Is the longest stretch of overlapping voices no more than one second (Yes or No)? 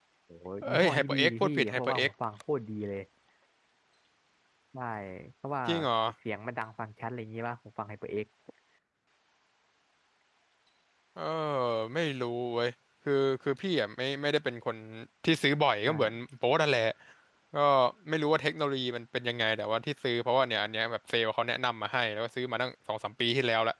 No